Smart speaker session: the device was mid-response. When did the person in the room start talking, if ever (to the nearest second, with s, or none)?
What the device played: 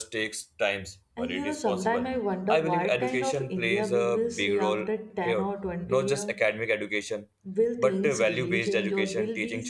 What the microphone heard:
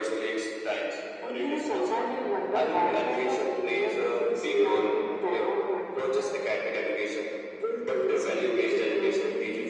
none